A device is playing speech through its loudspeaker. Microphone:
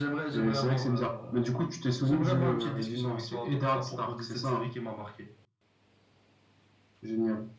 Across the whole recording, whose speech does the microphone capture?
echo only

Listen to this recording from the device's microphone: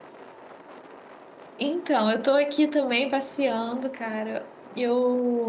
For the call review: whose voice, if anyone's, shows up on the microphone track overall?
user only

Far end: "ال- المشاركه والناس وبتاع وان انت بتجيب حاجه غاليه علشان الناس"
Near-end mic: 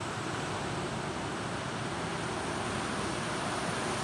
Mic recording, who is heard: neither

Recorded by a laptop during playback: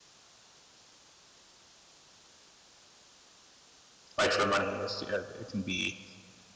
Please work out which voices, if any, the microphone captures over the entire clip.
user only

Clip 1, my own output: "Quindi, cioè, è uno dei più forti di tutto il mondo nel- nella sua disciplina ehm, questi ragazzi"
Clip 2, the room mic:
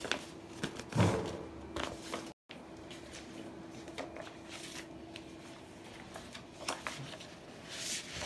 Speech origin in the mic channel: neither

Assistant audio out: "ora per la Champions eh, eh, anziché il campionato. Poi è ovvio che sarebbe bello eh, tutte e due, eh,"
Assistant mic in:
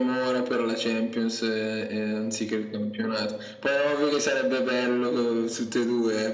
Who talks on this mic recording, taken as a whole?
echo only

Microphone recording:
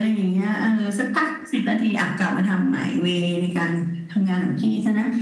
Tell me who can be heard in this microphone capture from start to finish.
echo only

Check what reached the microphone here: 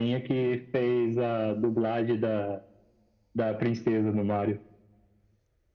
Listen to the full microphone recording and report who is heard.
echo only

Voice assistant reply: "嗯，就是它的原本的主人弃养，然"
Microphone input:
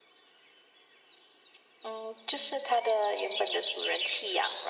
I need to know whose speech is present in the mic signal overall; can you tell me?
echo only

